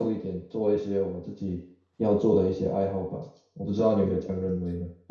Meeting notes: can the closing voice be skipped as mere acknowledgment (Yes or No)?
No